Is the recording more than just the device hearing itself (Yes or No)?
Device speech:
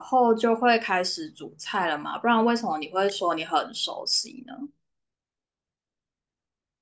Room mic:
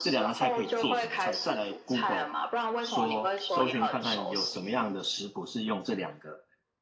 Yes